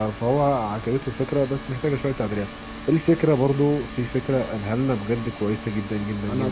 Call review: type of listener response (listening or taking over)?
taking over